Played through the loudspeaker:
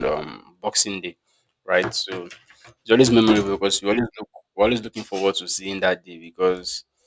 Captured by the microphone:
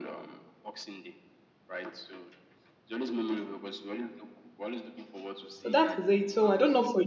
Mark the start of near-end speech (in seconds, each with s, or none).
5.6 s